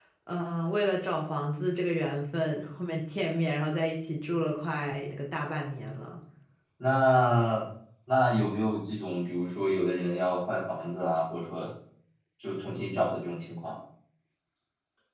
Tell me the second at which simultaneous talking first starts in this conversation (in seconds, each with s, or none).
none